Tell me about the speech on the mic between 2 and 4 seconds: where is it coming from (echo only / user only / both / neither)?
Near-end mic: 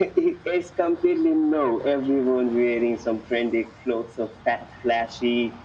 echo only